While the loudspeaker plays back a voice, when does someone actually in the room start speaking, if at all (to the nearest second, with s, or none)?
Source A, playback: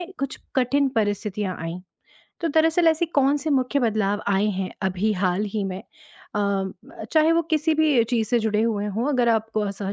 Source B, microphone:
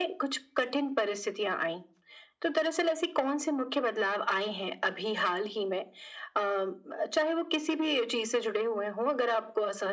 none